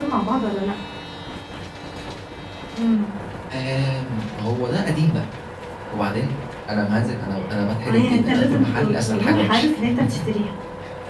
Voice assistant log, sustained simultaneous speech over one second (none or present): present